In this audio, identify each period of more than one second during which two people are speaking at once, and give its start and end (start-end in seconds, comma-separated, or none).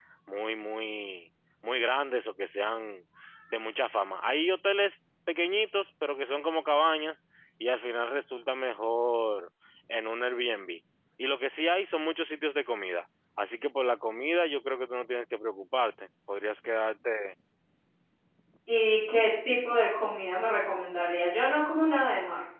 none